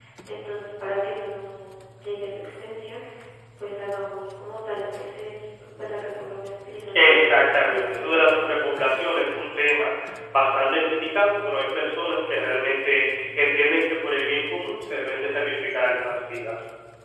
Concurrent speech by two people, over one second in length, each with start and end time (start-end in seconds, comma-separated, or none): 7.0-8.2